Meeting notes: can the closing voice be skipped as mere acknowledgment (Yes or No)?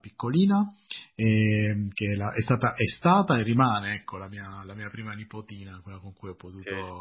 Yes